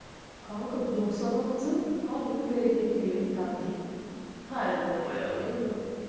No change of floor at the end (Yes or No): Yes